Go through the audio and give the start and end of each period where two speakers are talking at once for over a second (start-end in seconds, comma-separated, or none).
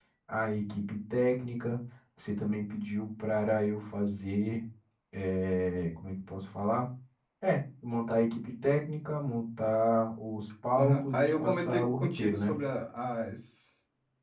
10.8-12.5